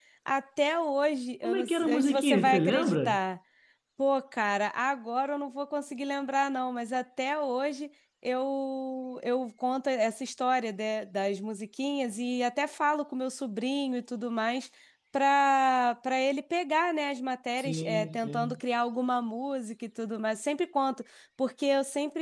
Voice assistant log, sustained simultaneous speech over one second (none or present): present